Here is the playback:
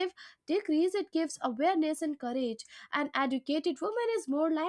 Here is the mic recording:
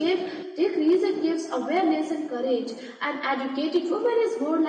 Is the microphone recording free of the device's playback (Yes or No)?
No